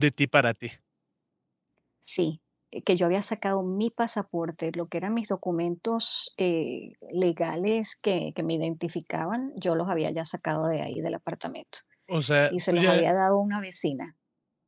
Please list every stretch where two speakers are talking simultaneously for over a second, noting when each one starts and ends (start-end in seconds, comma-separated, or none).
none